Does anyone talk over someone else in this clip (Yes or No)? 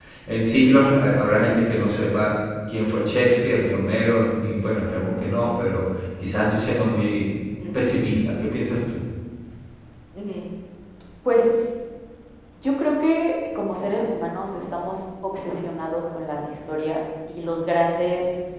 No